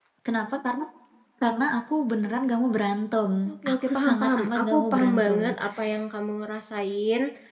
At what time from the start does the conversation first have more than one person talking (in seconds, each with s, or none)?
3.7 s